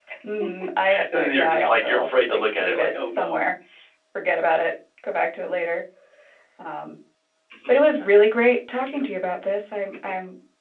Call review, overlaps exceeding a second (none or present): present